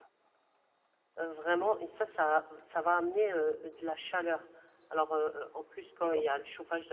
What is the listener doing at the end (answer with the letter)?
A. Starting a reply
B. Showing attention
B